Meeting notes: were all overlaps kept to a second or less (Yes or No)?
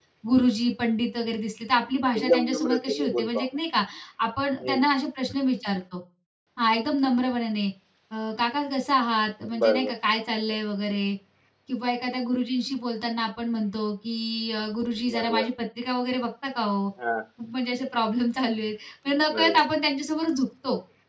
No